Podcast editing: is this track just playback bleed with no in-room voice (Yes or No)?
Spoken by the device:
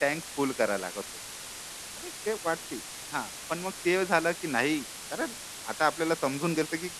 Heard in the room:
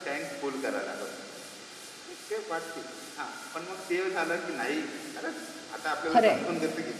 No